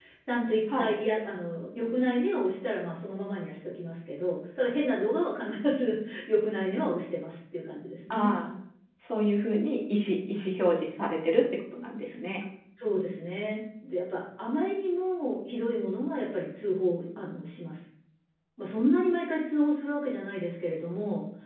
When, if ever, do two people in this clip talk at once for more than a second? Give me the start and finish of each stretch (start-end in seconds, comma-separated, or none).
none